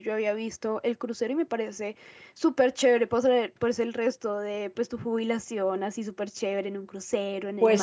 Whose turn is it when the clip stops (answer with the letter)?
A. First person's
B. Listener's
B